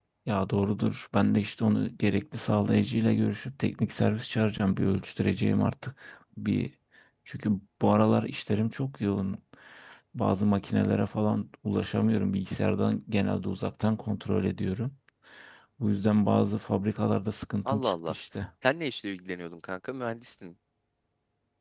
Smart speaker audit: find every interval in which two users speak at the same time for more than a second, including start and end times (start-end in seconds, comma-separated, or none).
none